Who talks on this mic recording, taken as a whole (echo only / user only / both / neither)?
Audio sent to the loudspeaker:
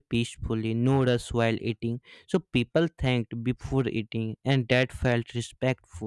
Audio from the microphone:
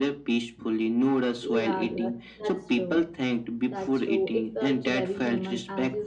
both